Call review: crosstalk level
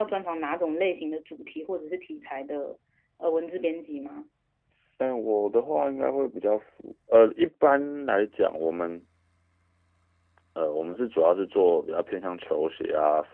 none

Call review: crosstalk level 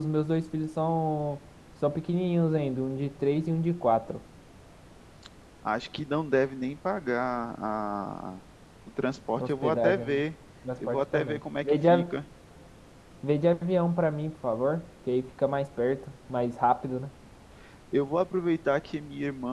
present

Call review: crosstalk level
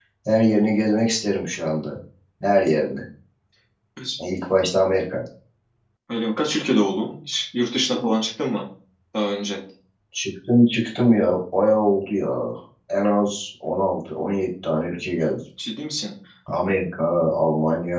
none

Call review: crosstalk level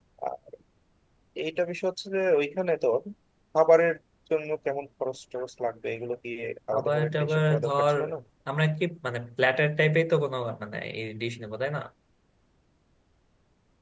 present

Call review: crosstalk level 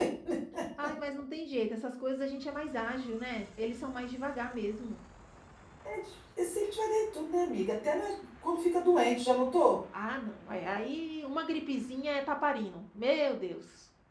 none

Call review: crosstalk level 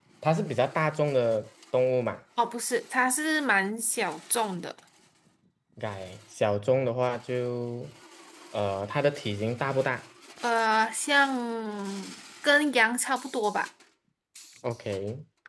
none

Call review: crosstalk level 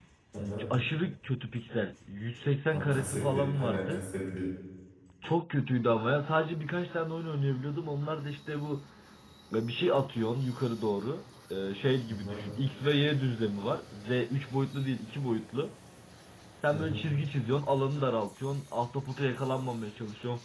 present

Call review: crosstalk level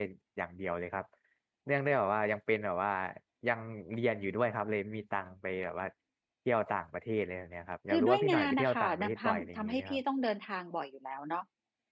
present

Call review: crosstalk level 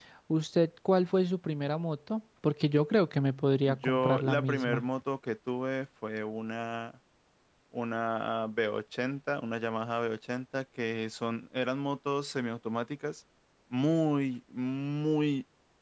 present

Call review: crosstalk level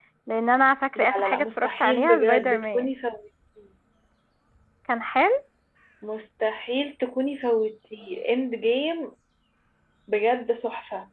present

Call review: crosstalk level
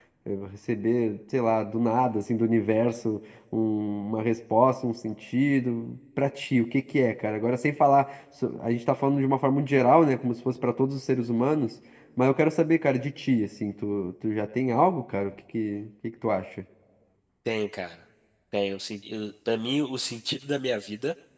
none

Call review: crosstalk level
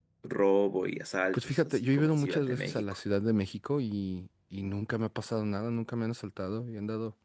present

